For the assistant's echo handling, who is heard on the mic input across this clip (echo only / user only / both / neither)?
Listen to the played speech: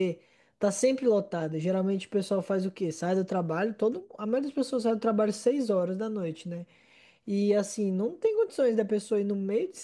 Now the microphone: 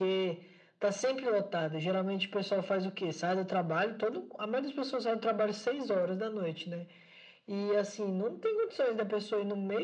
echo only